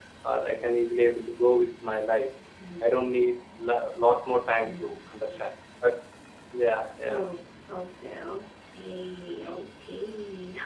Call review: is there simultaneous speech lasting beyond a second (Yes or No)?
No